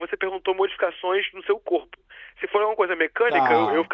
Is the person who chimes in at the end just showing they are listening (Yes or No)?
Yes